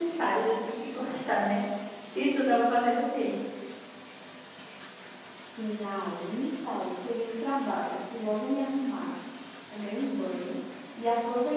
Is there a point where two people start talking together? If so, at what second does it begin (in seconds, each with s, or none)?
none